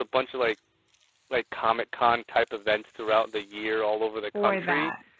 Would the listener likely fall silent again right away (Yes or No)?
Yes